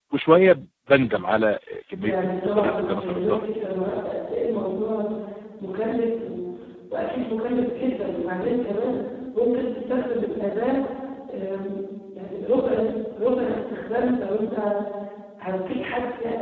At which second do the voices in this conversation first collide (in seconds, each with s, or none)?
2.0 s